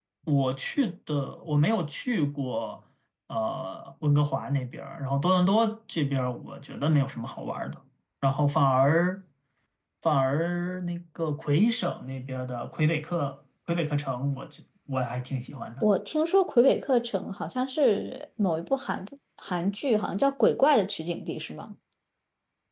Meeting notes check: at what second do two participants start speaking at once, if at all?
none

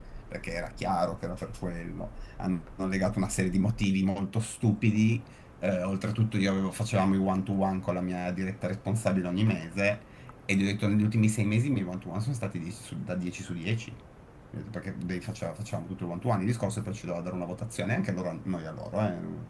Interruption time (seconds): none

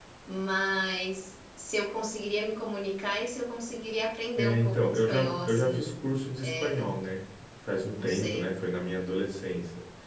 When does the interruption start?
4.4 s

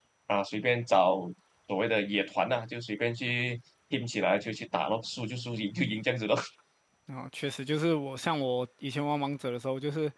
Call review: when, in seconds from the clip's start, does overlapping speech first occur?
none

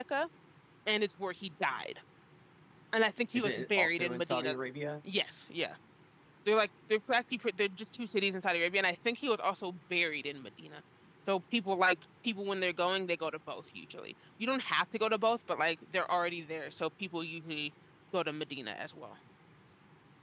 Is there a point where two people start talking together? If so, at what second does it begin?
3.4 s

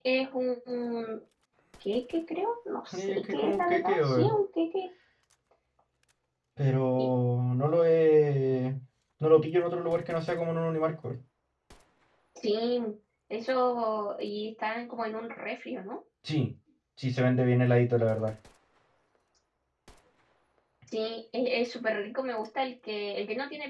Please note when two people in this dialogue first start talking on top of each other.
2.9 s

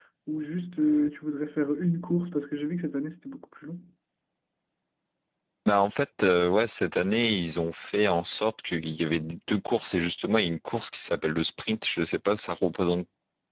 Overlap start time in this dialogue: none

